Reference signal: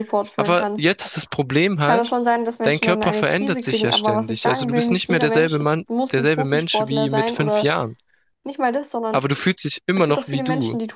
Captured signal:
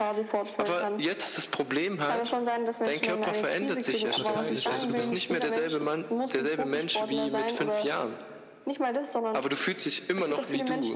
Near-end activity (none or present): present